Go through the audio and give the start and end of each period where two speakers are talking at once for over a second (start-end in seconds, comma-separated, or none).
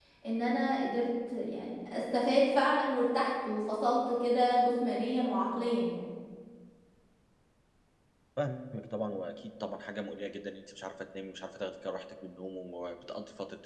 none